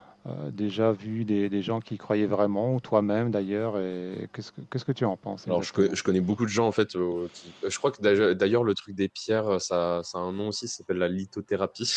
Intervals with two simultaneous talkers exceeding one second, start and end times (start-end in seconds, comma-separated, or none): none